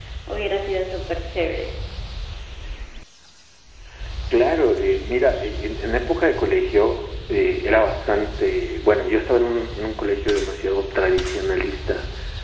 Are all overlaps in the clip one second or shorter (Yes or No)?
Yes